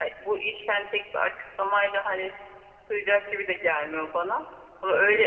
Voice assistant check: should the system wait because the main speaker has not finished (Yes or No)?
Yes